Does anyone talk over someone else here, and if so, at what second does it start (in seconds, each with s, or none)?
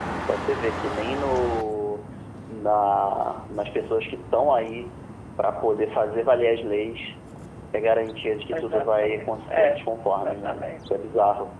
8.5 s